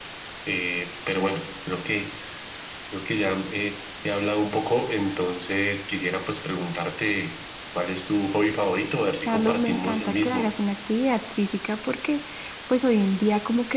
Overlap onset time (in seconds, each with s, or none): 9.3 s